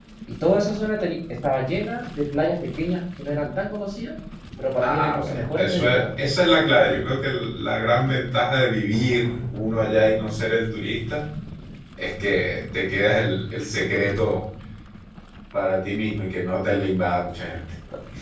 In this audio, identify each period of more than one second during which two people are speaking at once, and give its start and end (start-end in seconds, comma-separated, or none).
4.8-6.1